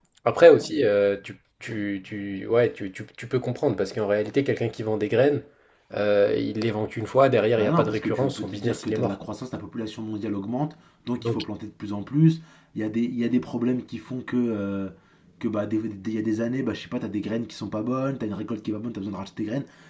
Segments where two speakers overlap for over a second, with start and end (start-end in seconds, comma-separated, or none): 7.6-9.2